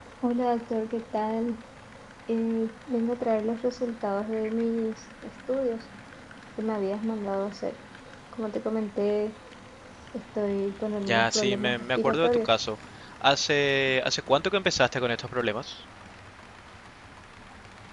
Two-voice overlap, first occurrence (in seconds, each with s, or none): 11.1 s